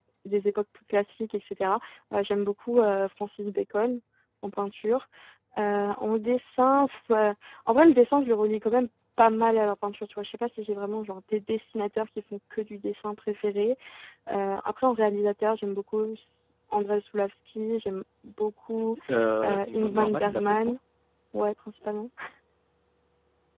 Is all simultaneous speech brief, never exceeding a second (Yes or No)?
No